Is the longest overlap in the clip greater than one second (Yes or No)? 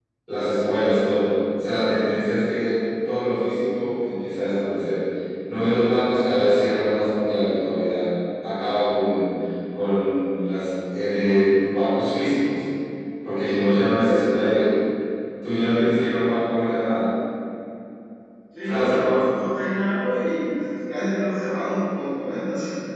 Yes